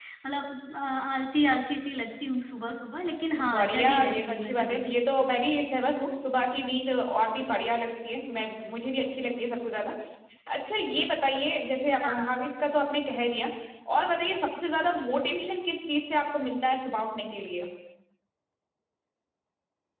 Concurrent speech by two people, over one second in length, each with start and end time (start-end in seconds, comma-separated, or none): 3.5-4.8